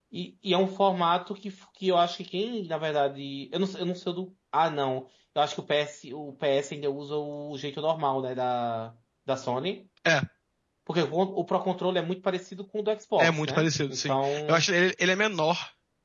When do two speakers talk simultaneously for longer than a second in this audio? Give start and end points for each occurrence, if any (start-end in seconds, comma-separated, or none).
13.2-14.7